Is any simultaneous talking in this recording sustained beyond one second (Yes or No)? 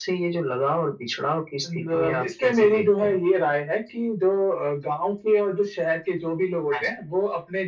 Yes